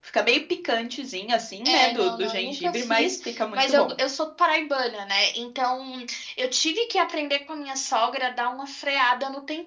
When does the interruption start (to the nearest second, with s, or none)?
2 s